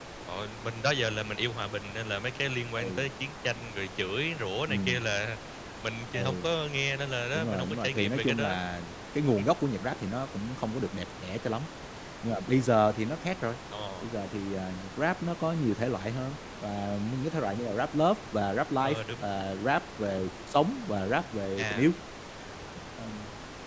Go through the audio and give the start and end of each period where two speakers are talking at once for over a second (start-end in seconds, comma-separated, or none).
7.3-8.6